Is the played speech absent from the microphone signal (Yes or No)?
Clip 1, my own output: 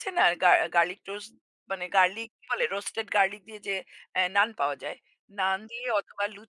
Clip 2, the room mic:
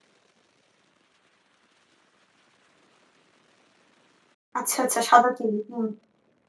Yes